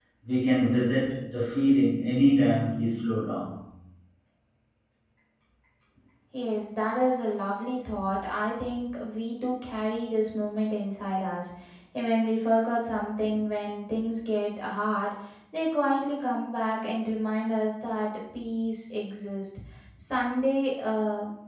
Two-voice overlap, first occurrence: none

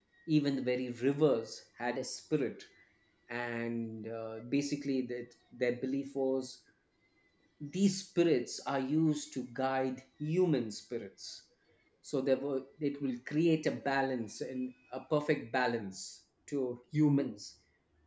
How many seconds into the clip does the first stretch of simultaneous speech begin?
none

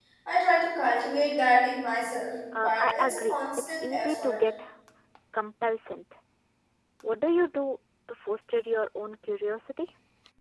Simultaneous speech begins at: 2.5 s

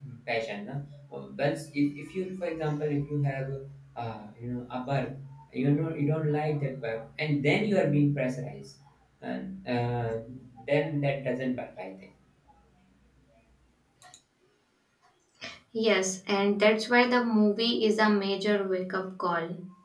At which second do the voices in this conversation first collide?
none

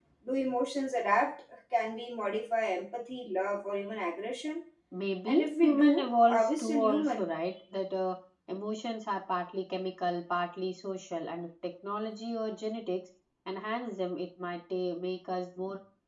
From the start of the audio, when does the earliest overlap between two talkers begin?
5.2 s

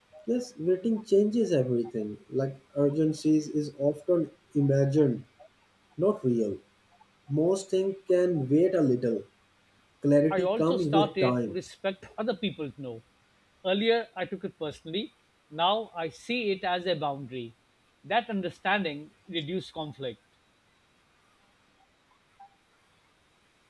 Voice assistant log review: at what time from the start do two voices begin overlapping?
10.3 s

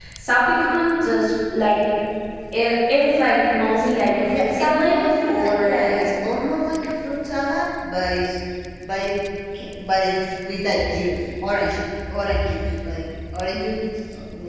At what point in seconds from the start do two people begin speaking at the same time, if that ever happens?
4.3 s

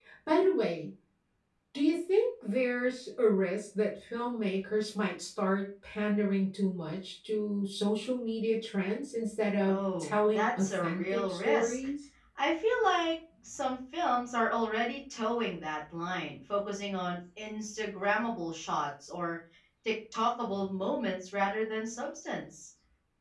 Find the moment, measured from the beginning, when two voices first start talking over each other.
9.7 s

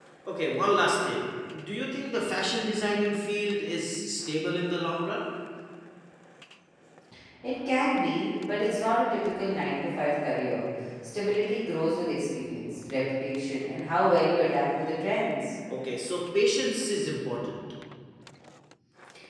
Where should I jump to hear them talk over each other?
none

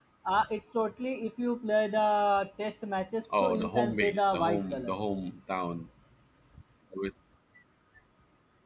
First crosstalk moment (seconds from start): 3.2 s

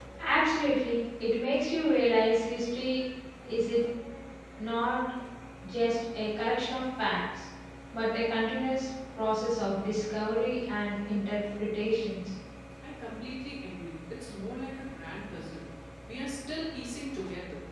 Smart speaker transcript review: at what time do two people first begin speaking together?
none

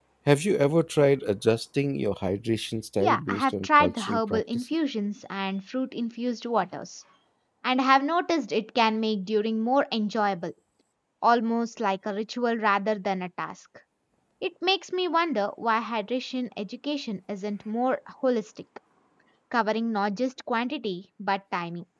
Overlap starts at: 3.0 s

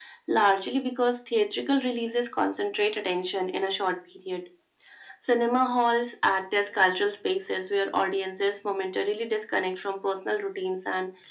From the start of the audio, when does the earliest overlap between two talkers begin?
none

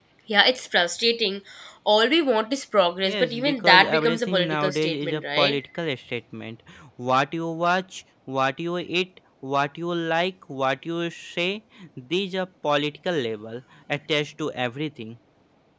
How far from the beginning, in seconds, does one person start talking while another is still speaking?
3.0 s

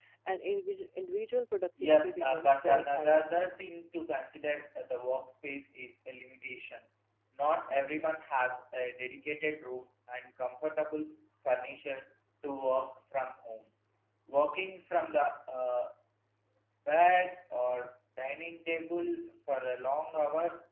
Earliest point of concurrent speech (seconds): 1.8 s

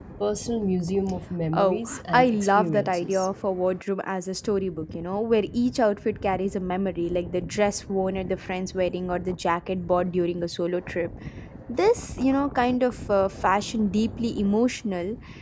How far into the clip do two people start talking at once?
1.5 s

